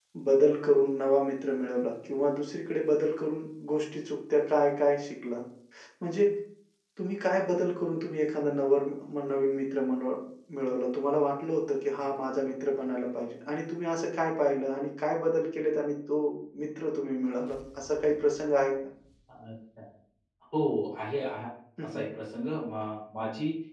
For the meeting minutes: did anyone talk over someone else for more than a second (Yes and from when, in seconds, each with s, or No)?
No